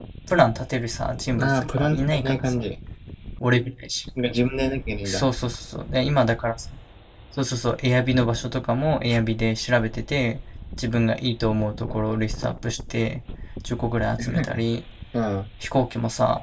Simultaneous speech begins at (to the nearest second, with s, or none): 1 s